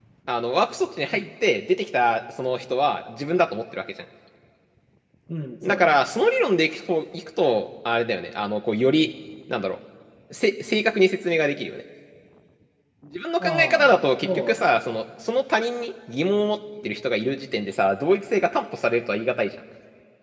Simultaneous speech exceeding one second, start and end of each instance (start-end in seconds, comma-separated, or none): 13.4-14.8